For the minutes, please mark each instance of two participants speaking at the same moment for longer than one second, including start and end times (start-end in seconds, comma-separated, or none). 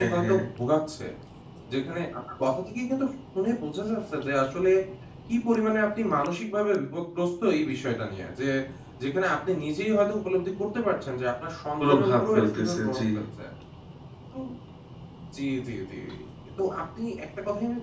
11.8-13.0